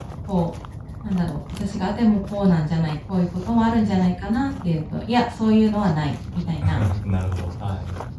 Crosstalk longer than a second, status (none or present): none